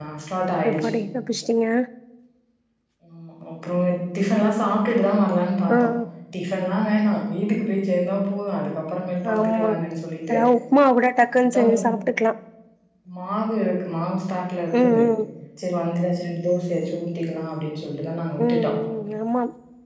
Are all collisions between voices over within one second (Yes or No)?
Yes